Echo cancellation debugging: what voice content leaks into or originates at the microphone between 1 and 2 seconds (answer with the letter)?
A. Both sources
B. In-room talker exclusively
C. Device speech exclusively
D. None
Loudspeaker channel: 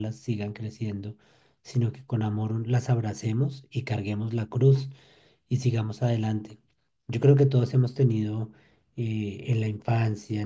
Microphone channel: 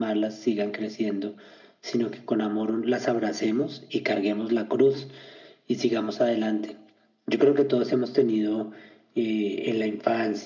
C